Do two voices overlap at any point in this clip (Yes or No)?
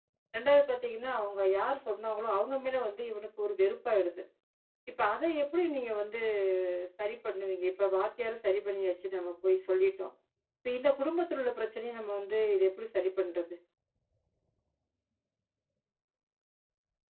No